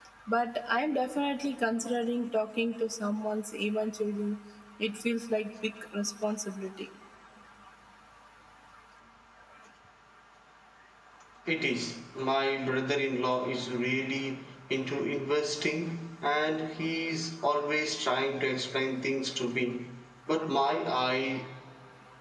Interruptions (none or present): none